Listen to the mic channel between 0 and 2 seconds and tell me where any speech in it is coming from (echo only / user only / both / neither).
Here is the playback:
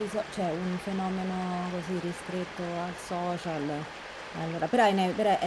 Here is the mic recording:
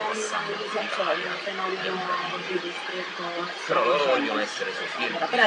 both